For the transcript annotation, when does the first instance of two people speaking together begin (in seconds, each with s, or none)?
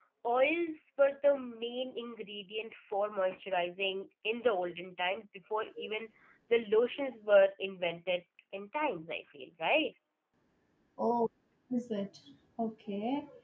none